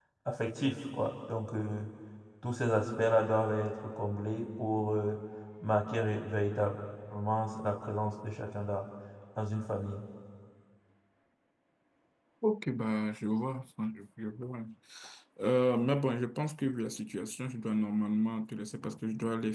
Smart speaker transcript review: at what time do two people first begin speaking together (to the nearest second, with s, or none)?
none